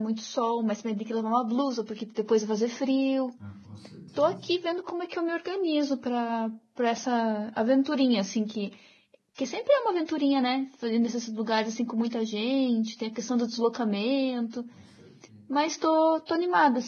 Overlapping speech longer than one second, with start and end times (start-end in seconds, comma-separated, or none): none